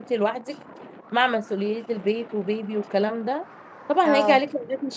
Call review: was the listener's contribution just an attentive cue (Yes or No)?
Yes